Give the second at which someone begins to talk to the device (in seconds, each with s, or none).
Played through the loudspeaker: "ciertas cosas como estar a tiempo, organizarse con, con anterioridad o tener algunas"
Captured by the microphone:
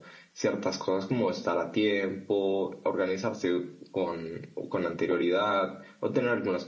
none